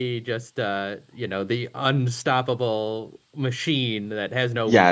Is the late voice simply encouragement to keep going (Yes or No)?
No